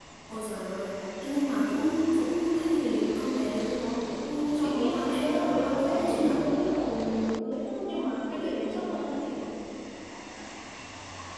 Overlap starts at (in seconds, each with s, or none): 4.6 s